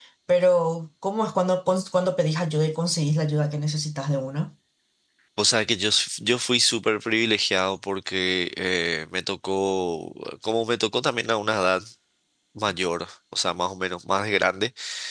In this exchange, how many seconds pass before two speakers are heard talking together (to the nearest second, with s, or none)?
none